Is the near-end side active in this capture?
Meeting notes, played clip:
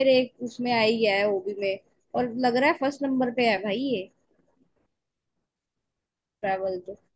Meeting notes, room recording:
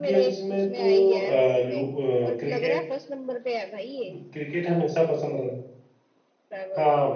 Yes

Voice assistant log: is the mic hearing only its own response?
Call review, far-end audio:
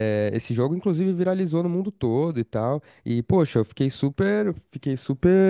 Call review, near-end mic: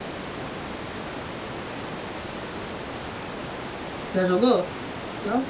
No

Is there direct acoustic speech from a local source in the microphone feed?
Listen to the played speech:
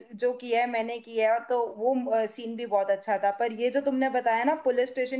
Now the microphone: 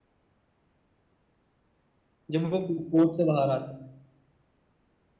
Yes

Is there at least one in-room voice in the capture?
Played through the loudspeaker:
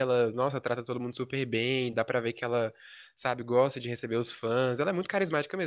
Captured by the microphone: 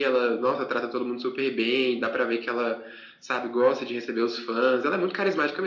No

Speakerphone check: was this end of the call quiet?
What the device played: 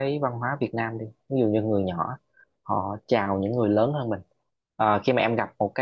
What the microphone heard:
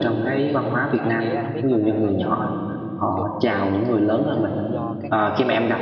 No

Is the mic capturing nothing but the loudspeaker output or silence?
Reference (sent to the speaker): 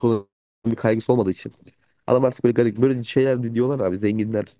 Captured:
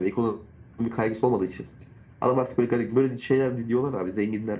Yes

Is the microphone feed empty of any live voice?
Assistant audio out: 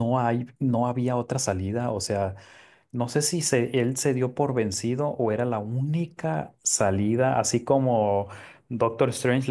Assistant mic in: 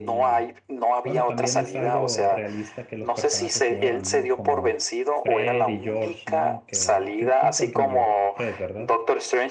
No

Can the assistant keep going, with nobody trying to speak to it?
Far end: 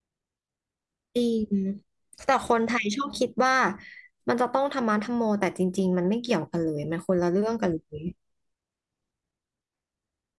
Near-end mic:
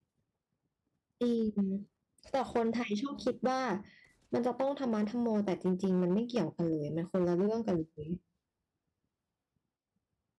Yes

